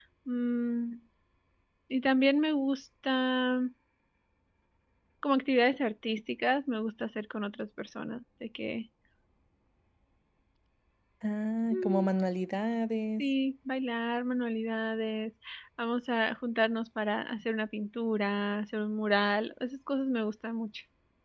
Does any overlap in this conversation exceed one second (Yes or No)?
No